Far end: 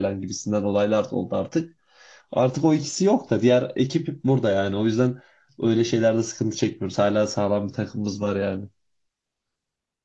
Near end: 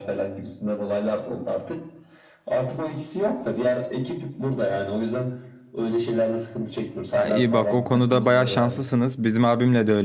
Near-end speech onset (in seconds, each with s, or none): 7.1 s